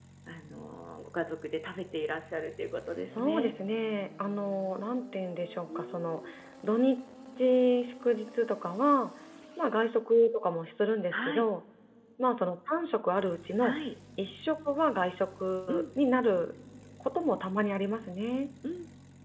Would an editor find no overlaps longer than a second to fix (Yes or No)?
Yes